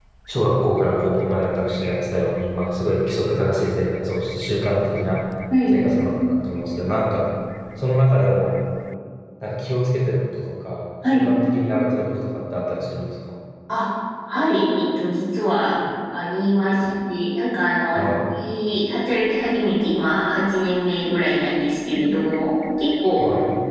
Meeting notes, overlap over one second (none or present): none